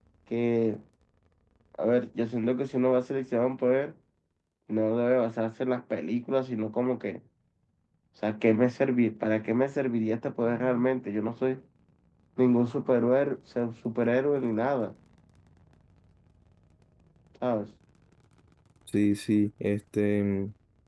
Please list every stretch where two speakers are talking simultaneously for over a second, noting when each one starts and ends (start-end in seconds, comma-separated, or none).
none